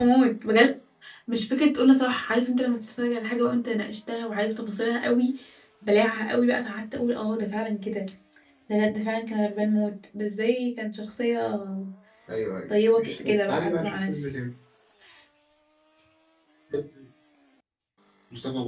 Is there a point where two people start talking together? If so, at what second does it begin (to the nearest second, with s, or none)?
13 s